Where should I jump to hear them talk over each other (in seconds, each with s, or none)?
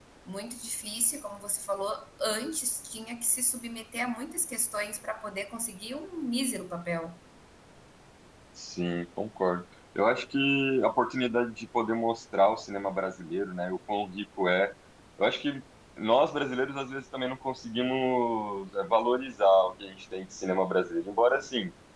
none